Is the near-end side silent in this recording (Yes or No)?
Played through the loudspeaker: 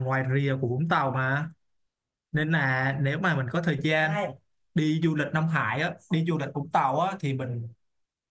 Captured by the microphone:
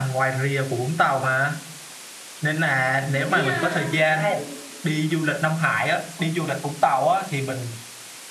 No